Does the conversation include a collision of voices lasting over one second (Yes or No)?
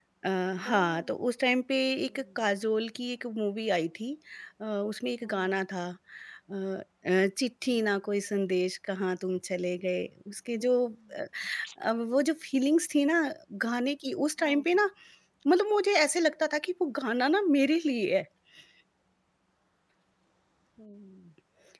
No